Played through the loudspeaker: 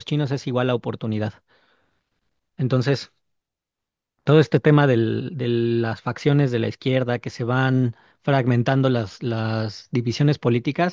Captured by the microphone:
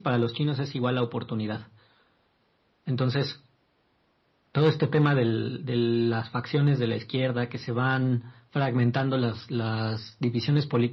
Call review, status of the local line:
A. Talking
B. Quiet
B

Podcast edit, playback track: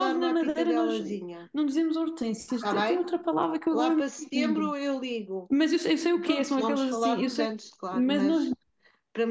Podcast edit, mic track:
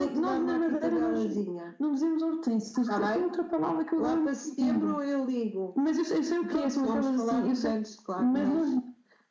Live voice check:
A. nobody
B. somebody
A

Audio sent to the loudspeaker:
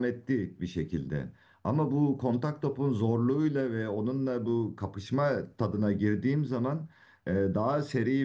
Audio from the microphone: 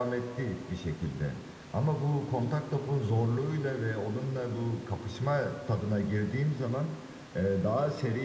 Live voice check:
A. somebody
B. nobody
B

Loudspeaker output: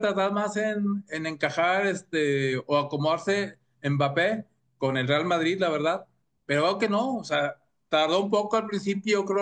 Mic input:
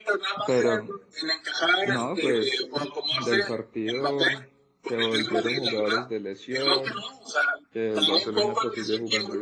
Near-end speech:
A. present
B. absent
A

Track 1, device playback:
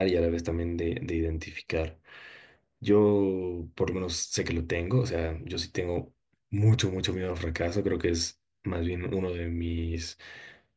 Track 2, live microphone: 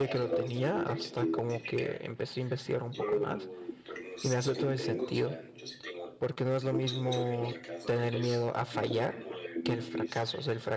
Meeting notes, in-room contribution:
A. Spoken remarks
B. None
A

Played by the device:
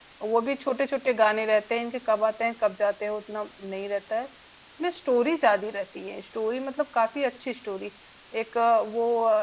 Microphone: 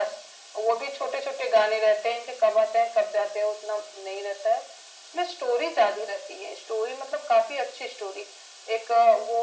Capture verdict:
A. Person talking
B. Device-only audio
B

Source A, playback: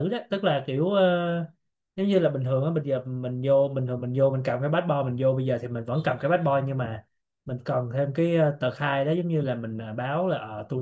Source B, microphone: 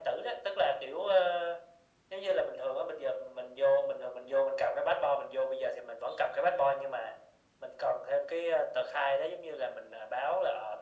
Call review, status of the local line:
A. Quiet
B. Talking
A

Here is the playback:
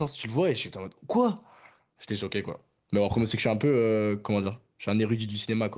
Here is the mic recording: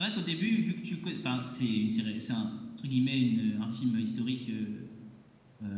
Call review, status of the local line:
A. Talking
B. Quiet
A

